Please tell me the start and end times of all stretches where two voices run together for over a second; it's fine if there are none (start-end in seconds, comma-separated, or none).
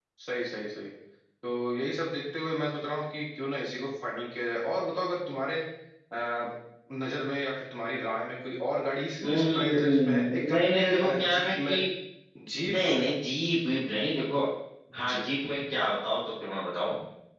9.2-11.7